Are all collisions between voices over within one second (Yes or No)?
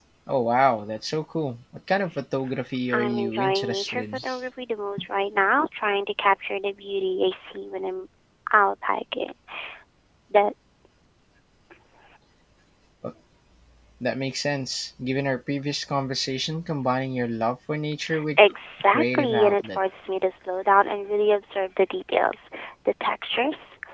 No